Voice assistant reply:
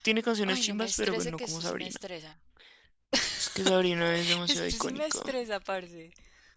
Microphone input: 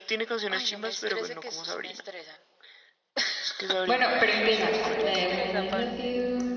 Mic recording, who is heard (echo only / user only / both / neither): both